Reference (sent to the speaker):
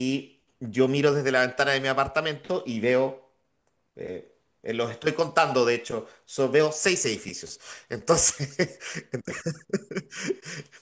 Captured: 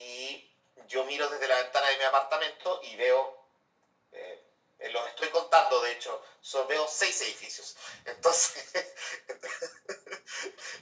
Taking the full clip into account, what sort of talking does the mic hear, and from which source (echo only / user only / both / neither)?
echo only